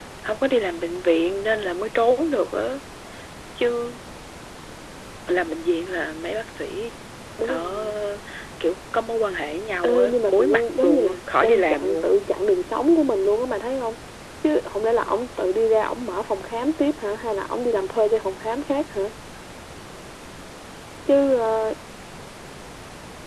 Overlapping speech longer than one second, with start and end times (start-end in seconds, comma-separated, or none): 9.8-12.2